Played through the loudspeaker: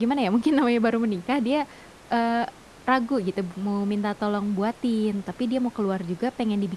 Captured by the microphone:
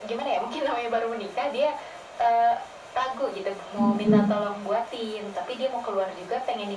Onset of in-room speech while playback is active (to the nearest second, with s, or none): 4 s